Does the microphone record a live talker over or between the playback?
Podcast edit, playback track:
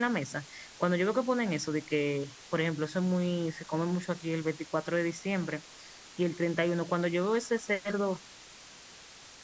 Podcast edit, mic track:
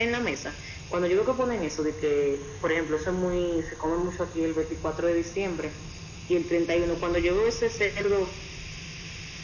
No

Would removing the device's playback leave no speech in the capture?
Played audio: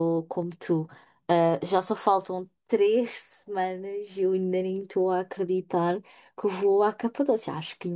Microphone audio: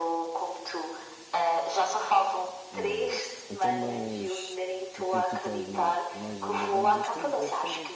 No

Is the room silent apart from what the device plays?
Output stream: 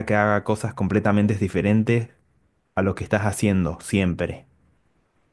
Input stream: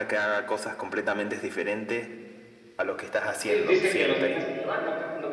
No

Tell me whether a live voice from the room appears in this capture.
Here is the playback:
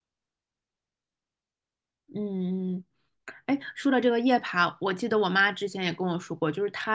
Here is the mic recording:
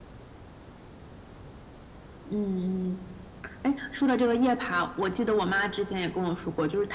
No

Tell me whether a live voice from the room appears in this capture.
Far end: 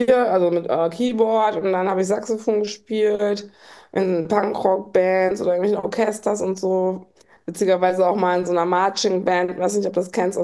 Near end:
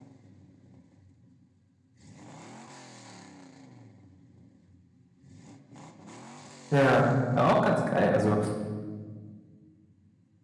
Yes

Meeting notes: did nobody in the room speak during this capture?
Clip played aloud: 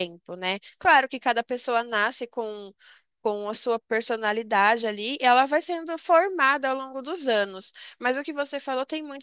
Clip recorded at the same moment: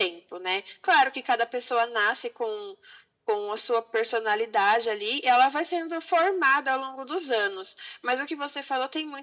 Yes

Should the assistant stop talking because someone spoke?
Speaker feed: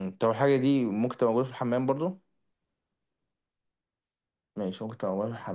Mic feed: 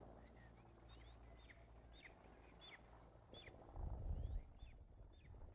No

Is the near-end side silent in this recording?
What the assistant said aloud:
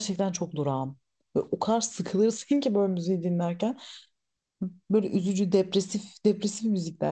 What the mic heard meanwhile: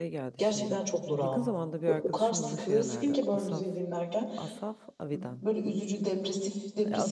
No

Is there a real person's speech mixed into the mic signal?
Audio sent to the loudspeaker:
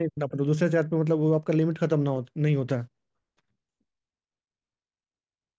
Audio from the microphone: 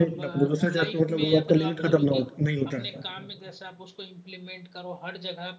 Yes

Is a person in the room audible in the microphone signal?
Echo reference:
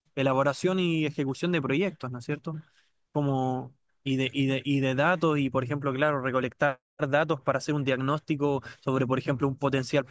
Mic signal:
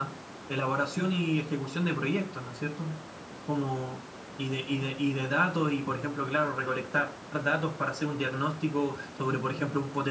No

